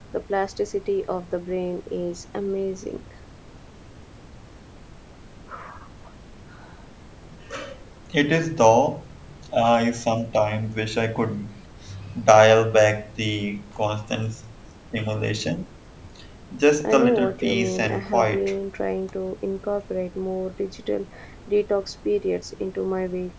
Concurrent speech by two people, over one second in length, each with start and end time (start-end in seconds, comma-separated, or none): 16.8-18.5